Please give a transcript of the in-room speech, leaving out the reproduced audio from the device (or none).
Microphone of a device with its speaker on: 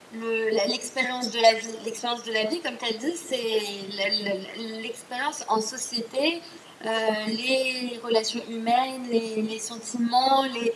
none